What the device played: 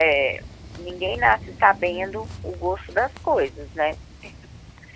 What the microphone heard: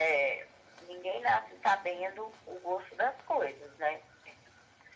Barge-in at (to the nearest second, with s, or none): none